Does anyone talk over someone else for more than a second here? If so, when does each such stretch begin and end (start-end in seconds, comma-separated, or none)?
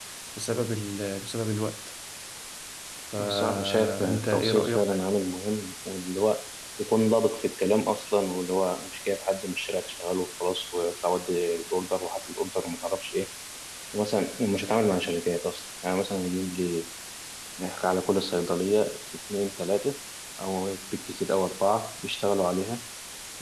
3.2-5.0